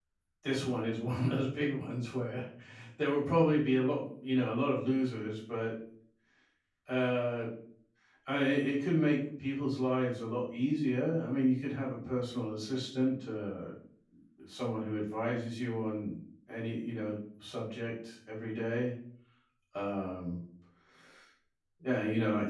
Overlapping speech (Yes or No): No